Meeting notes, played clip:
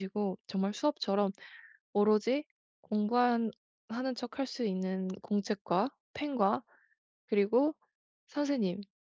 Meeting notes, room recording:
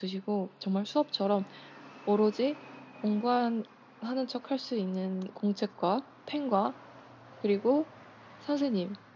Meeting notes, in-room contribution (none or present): none